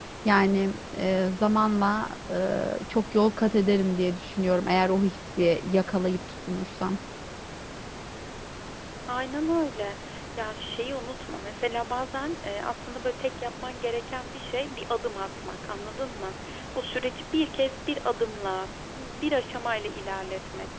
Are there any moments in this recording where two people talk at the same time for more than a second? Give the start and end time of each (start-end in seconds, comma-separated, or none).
none